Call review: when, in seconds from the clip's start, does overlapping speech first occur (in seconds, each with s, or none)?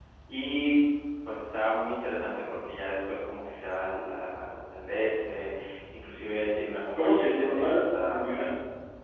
7.0 s